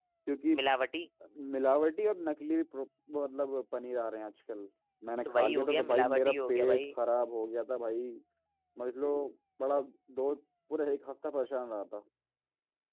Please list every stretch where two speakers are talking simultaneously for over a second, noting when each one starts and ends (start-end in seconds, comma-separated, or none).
5.2-6.8